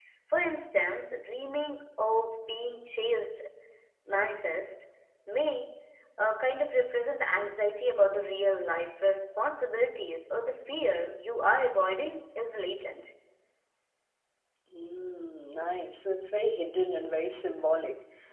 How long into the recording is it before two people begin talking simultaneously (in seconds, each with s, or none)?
none